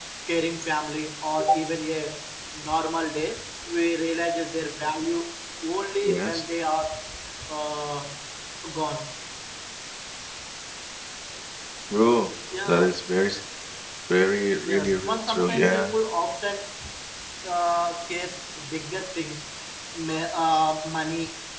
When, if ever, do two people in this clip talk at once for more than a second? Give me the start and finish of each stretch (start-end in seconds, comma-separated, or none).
14.6-15.9